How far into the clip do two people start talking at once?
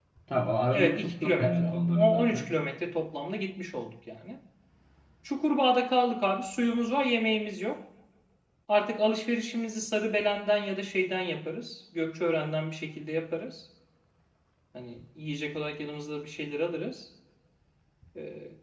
0.7 s

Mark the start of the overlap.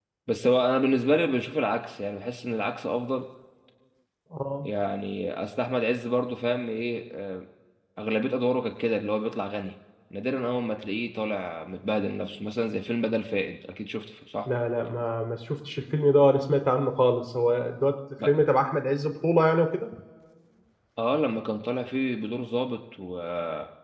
none

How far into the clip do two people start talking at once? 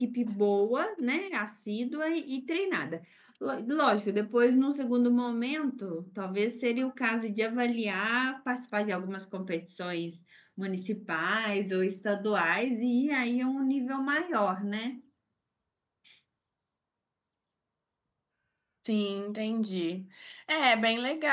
none

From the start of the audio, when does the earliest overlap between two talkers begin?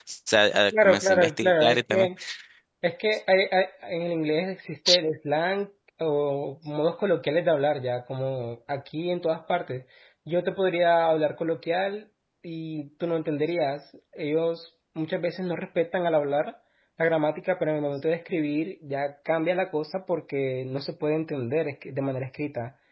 0.8 s

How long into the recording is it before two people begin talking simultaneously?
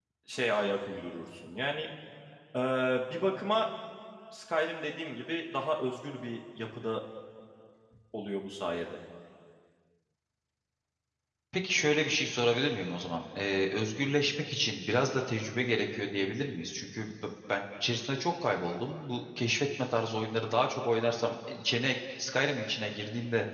none

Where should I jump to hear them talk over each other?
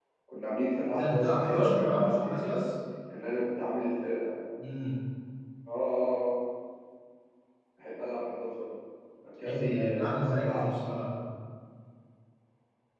0.9 s

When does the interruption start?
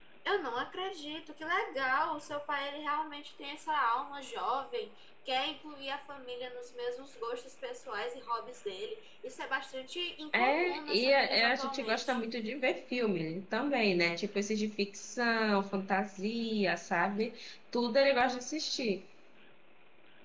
10.3 s

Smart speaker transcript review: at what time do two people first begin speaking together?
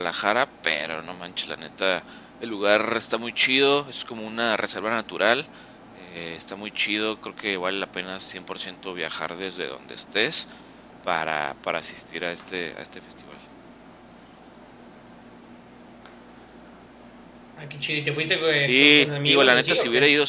18.6 s

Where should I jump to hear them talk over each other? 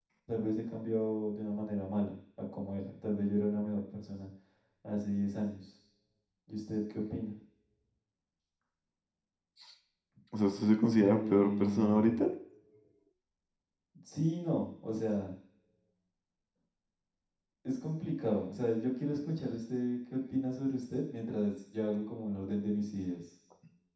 11.0 s

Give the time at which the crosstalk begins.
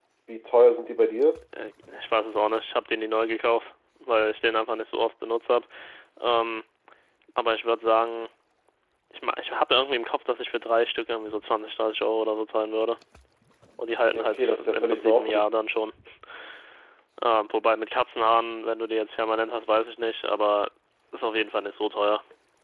14.1 s

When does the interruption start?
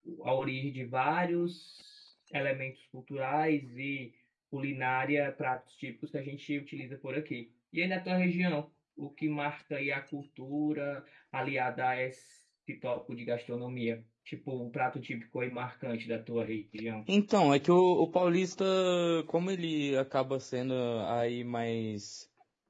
none

